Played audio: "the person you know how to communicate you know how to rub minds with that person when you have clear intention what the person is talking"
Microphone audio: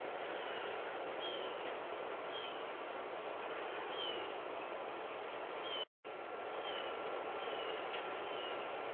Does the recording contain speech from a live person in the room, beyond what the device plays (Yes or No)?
No